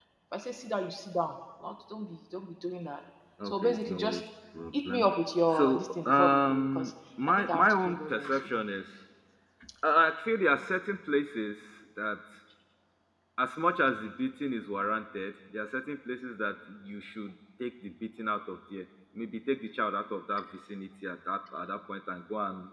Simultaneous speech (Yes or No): Yes